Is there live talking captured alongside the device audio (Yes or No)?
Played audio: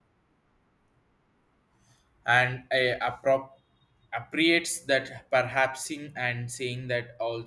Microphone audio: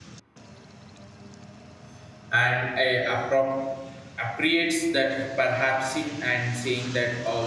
No